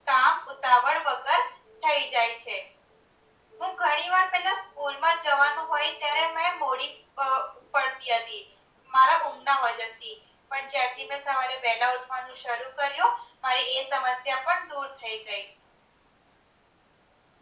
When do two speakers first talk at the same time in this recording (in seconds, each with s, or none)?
none